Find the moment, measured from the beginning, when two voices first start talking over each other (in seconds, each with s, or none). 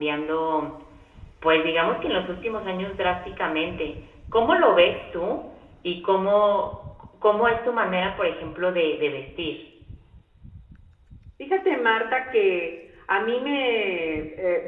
none